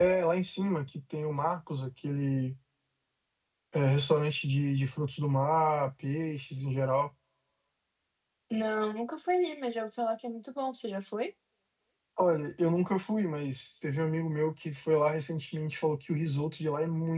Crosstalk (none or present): none